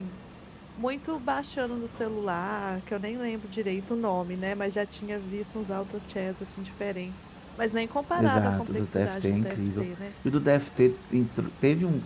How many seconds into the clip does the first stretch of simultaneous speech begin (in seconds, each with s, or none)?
8.2 s